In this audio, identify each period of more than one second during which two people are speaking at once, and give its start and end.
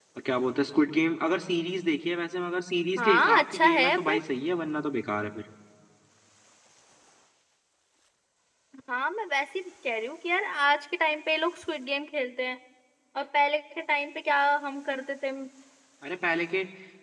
3.0-4.2

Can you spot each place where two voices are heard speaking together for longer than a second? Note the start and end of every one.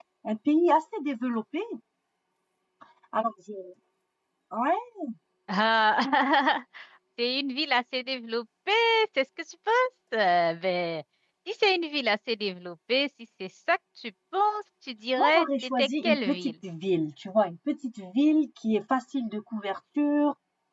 15.2-16.5

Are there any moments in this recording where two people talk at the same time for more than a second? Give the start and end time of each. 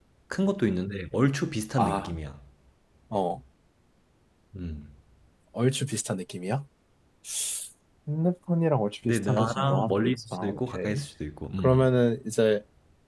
9.0-11.0

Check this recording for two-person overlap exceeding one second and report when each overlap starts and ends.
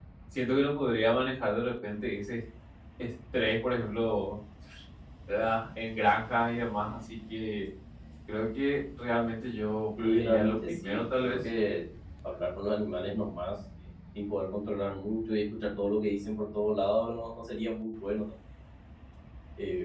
10.0-11.4

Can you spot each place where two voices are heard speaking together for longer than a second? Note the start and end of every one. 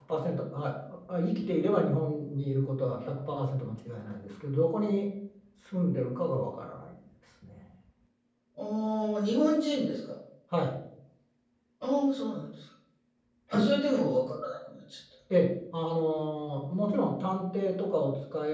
none

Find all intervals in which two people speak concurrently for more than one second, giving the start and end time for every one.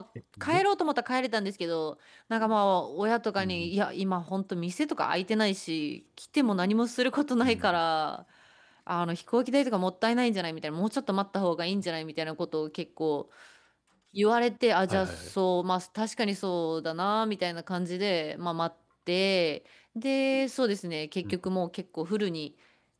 none

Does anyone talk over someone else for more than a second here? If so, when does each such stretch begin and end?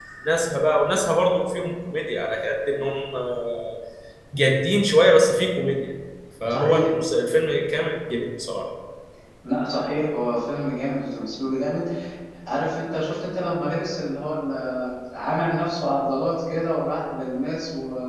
none

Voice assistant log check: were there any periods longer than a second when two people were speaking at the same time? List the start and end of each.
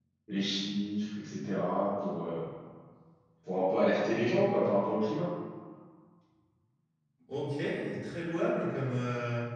none

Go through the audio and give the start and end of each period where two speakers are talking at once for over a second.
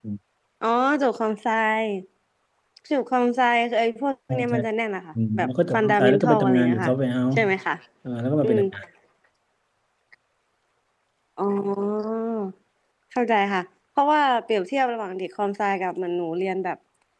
5.3-6.9

